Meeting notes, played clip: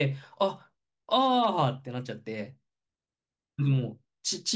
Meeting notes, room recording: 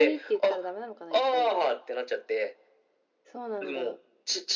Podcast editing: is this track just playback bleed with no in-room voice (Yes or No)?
No